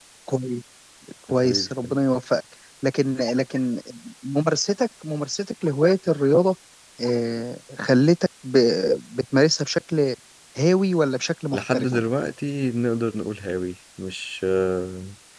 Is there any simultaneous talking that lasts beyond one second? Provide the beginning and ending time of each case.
none

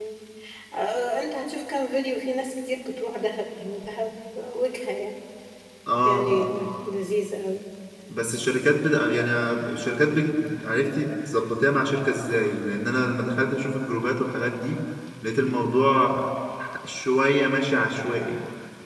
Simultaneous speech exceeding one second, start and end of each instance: none

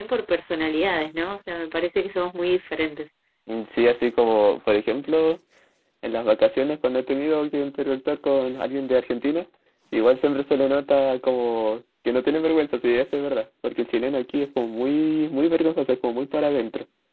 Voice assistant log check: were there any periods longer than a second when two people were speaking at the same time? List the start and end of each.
none

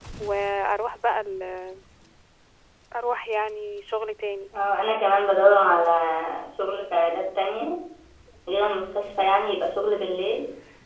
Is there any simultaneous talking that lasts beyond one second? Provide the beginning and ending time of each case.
none

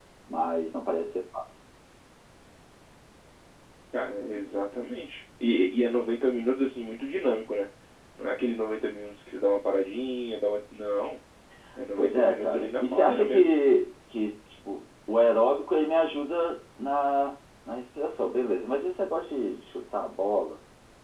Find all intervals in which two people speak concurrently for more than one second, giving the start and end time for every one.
12.0-13.5

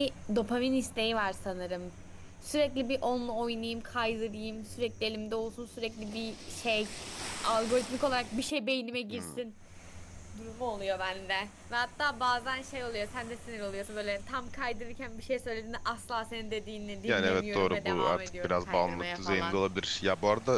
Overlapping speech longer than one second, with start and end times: 17.1-19.6

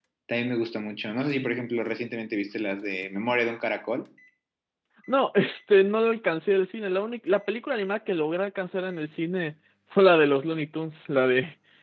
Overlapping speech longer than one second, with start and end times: none

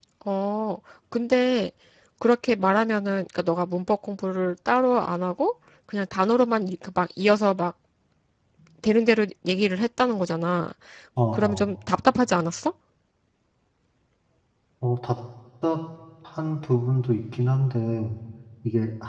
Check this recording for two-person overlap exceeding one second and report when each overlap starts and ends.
none

